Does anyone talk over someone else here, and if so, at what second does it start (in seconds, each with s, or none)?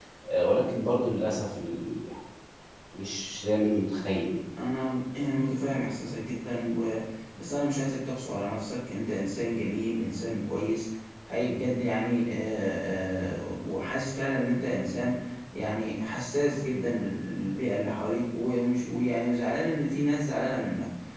none